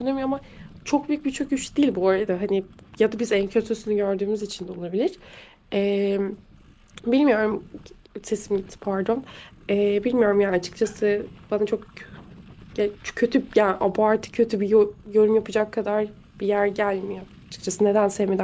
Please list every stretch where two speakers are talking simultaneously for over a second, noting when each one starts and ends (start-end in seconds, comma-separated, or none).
none